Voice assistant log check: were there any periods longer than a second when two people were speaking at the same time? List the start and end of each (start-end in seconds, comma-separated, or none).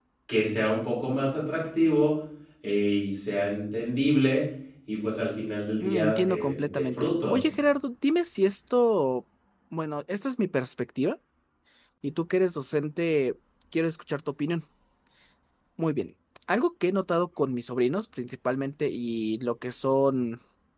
5.8-7.4